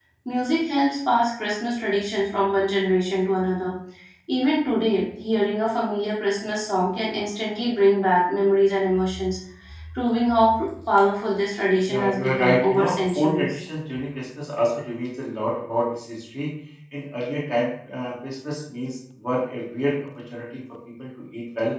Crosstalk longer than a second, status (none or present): present